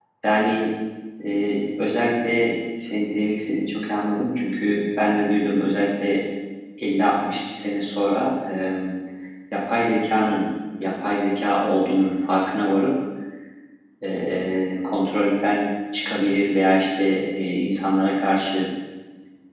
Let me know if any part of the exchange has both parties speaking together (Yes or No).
No